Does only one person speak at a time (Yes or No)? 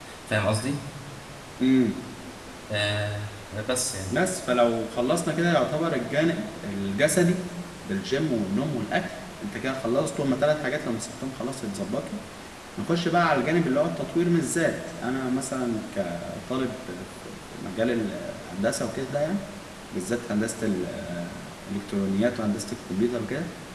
Yes